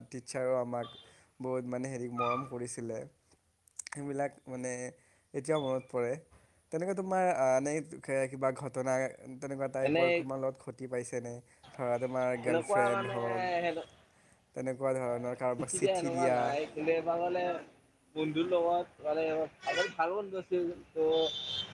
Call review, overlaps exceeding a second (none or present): present